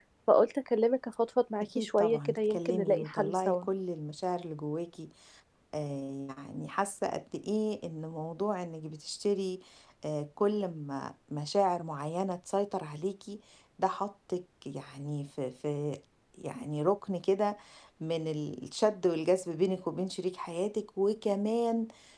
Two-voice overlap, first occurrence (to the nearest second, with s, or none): 2 s